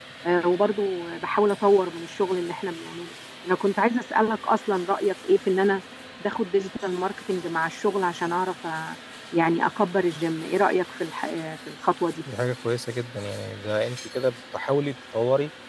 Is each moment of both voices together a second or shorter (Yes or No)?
Yes